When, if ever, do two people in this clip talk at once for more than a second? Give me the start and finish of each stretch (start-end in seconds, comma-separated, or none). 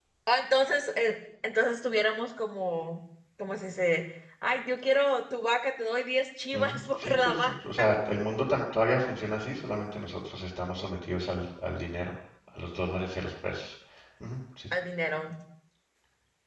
6.5-7.8